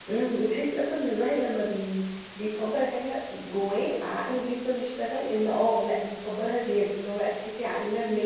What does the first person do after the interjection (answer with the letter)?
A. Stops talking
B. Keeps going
B